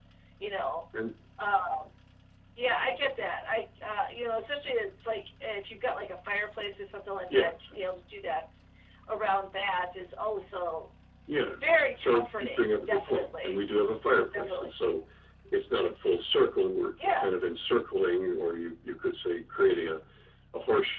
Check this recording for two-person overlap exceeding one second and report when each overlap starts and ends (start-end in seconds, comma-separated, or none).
12.0-13.6